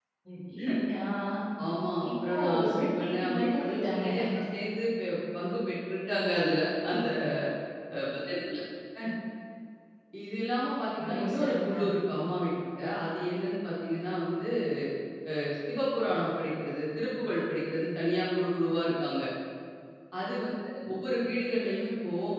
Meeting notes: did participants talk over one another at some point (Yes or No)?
Yes